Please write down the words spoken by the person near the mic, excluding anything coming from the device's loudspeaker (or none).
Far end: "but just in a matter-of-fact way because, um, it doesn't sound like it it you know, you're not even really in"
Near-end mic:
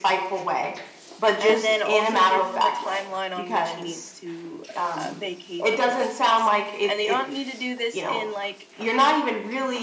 and then also give him a timeline on which he needs to, uh, vacate the premises. And you don't need to do this in, like